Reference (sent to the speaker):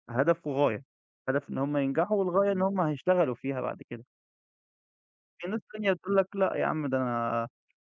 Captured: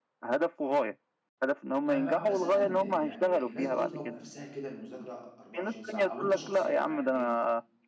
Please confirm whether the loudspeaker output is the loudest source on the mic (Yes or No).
Yes